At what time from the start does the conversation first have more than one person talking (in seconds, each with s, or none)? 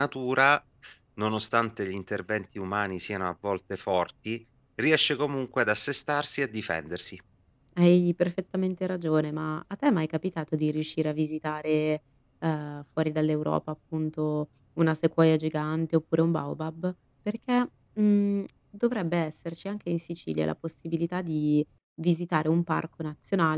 none